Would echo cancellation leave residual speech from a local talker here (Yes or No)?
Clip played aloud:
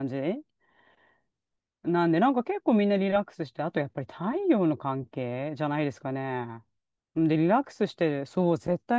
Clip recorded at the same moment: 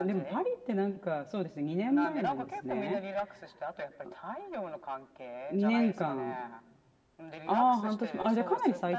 Yes